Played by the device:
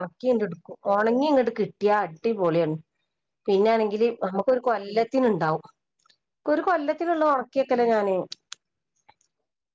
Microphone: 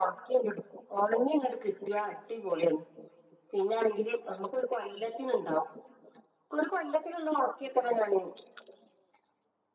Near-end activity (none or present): none